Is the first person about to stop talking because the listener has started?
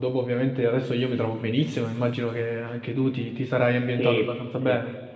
Yes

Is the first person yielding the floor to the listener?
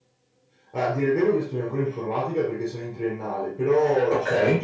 No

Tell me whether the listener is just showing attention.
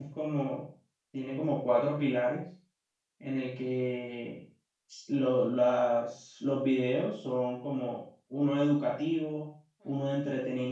Yes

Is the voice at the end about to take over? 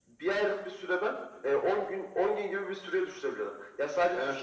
No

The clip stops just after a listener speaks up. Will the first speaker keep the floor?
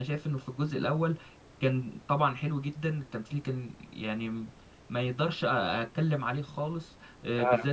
Yes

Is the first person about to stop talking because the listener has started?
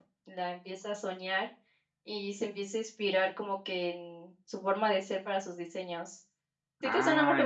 Yes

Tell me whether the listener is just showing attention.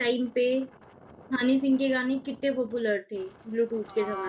No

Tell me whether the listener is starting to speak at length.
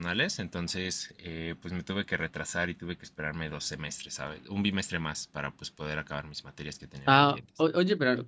Yes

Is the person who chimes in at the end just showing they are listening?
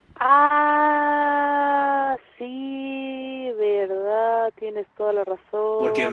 No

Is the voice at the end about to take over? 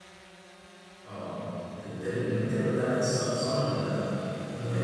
Yes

